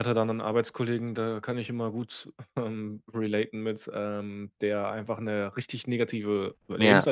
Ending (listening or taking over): listening